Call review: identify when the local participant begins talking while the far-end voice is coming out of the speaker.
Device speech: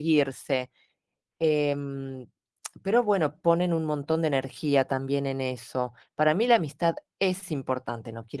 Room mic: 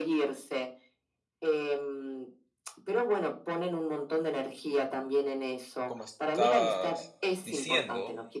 5.8 s

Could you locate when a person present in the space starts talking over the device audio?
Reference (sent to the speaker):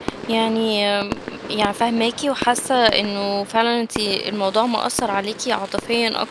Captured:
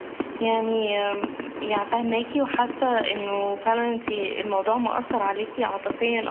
none

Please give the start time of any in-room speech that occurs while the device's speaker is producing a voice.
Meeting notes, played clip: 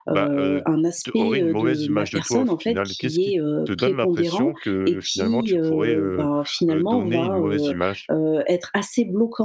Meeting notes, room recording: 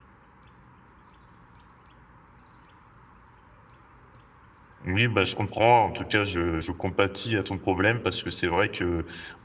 4.8 s

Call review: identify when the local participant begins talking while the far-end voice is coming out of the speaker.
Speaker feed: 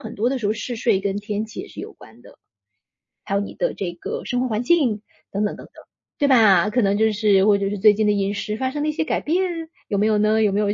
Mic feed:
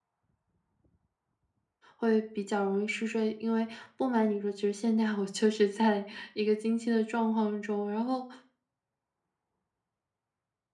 2.0 s

